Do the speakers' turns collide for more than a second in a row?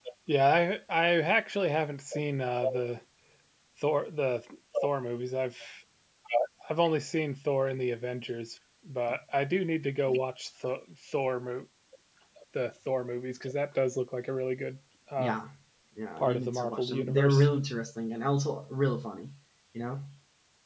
Yes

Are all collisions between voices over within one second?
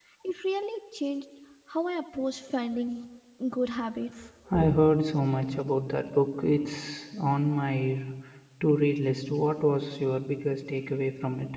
Yes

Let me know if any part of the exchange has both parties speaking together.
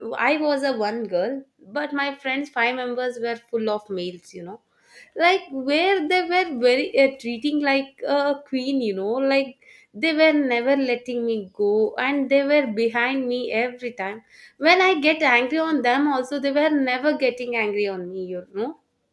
No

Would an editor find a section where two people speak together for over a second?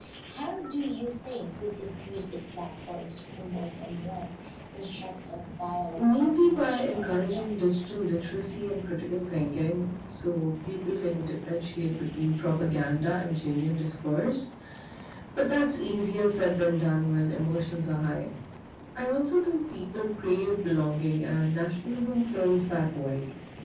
Yes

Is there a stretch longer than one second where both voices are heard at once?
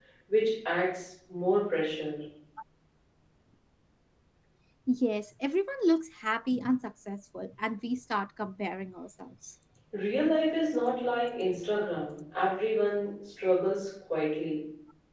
No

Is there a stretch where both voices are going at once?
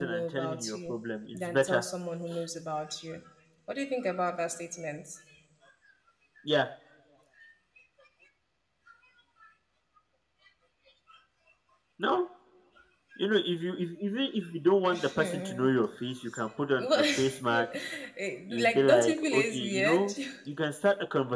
Yes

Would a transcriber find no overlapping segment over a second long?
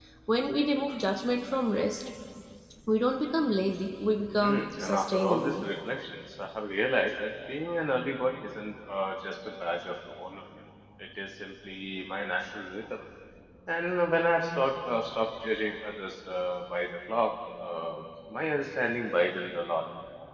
No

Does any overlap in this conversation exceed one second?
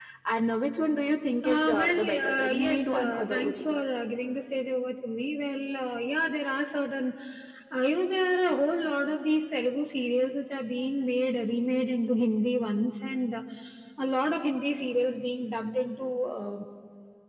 Yes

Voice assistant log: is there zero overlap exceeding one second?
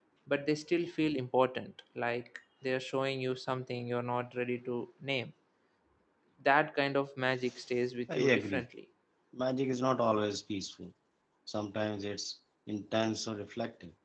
Yes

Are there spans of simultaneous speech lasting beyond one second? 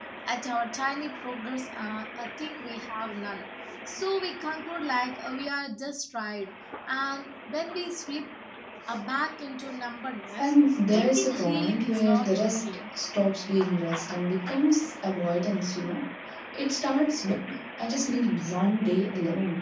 Yes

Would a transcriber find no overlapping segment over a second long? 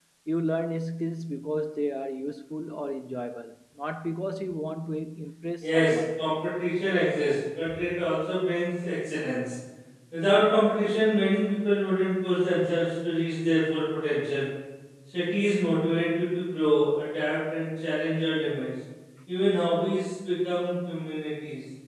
Yes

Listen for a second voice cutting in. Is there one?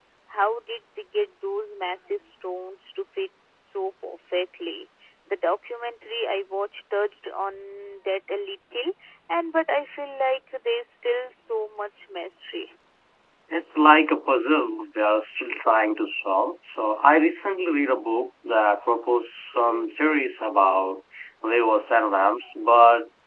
No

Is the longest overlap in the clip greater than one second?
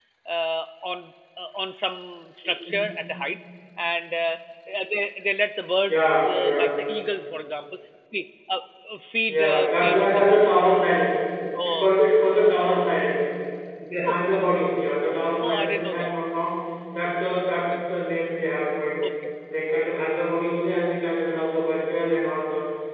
Yes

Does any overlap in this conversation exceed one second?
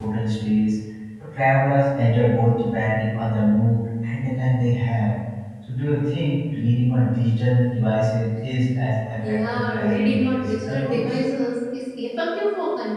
Yes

